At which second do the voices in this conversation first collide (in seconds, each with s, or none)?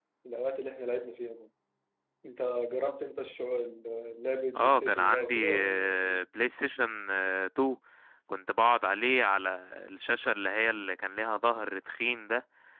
4.5 s